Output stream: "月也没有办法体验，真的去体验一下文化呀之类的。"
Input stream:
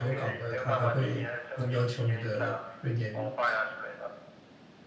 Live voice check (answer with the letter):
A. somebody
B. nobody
A